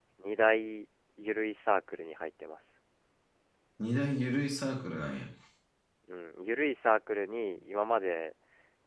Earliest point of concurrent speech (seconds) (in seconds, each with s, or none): none